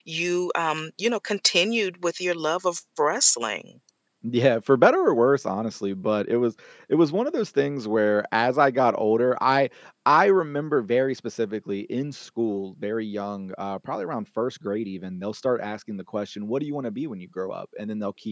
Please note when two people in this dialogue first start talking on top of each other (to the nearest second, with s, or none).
none